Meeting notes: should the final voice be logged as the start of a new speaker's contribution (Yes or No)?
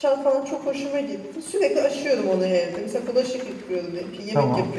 No